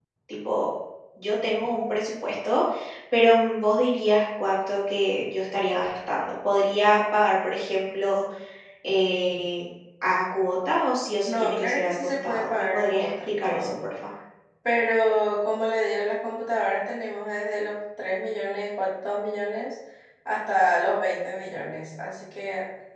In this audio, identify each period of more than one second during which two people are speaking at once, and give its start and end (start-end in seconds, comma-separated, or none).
11.2-13.7